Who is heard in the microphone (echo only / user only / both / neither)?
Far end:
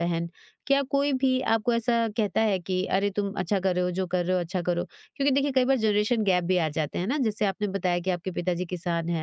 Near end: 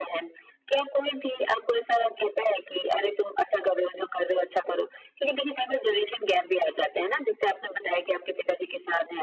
echo only